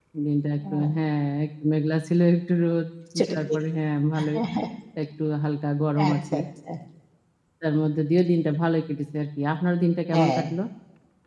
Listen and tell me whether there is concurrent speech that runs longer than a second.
No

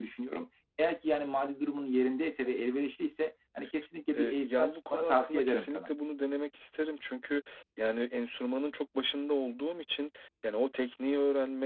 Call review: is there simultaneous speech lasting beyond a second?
Yes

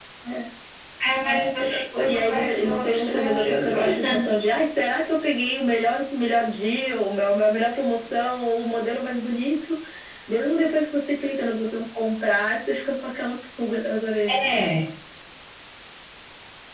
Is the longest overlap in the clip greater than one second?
Yes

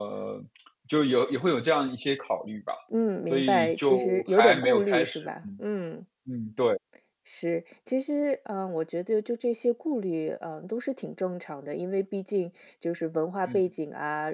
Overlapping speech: Yes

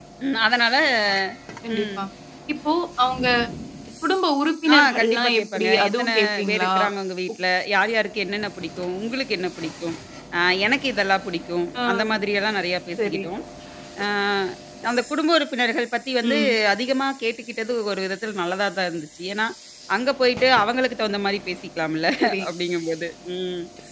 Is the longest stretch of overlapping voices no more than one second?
No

